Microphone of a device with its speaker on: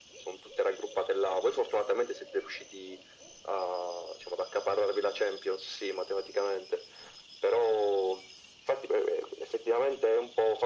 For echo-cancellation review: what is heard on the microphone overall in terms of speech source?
echo only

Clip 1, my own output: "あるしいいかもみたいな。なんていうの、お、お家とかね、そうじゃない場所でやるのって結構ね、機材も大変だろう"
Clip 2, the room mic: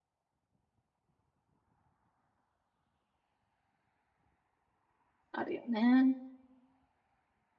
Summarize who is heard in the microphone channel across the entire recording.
user only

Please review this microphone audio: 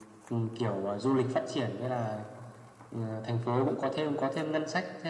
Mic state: echo only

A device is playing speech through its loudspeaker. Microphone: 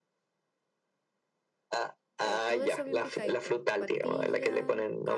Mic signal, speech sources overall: both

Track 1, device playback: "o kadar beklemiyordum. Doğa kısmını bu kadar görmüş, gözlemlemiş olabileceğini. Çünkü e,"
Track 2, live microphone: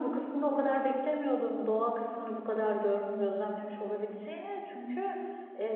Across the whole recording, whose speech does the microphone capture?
echo only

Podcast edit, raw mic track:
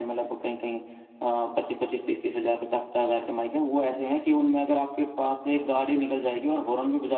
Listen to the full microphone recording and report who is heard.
echo only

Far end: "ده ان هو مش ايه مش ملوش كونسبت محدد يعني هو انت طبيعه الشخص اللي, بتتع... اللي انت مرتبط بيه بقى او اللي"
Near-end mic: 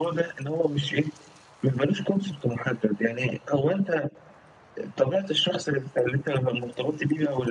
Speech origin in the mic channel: echo only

